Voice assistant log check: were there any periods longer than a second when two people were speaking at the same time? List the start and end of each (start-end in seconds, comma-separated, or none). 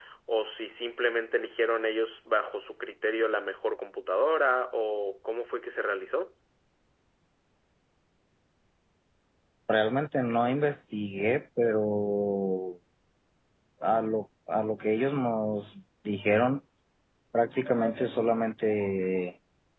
none